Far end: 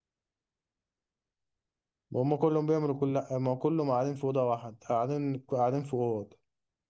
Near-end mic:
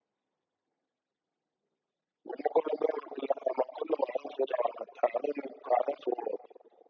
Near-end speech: none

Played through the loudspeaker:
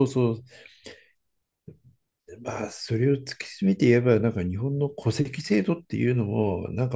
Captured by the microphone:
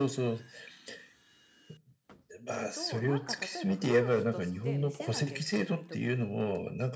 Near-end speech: present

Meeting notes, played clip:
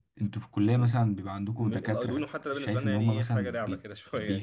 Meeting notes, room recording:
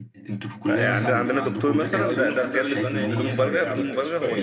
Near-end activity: present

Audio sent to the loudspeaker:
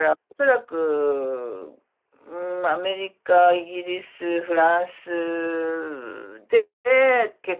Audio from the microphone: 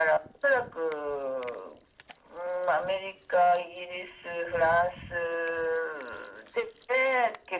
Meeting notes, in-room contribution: none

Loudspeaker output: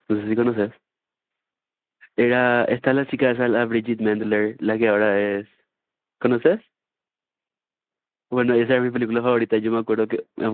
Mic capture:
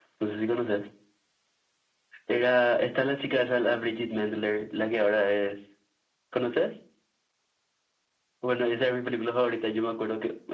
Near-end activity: none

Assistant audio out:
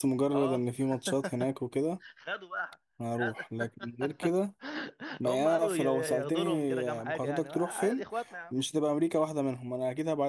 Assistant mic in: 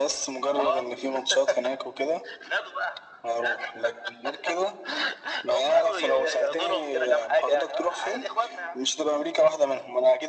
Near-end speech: none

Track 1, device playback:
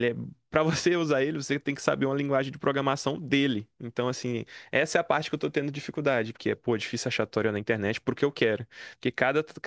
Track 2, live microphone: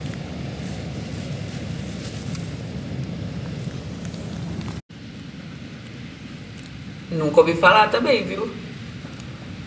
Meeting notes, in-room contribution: present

